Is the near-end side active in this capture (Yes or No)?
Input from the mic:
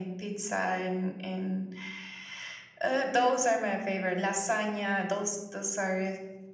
No